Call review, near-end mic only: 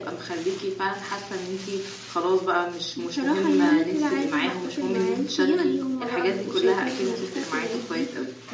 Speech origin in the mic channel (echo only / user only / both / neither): echo only